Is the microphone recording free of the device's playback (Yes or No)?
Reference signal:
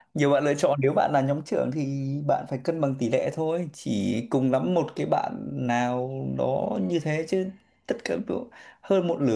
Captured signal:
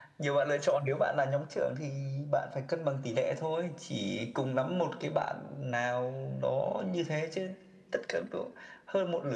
No